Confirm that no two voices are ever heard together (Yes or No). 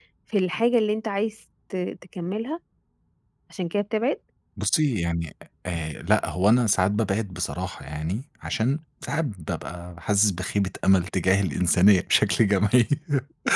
Yes